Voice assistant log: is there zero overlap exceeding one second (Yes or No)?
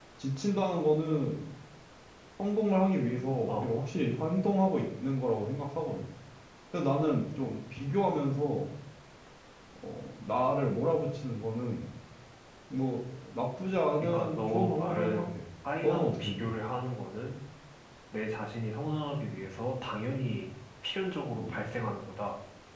No